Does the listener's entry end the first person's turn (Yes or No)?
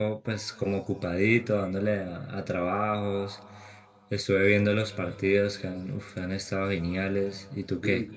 Yes